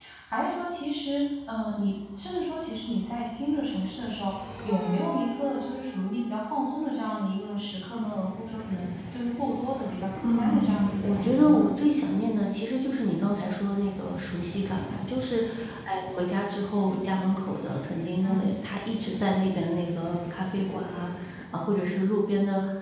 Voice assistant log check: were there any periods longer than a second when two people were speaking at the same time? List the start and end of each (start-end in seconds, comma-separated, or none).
10.2-11.7